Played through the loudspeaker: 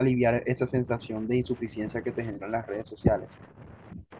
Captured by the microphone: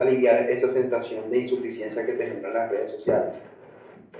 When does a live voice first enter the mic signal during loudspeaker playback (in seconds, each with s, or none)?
none